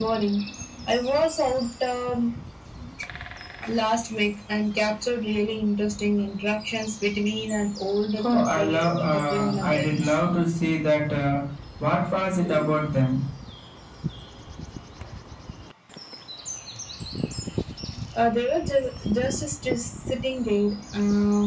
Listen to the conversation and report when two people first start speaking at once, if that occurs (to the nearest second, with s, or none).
8 s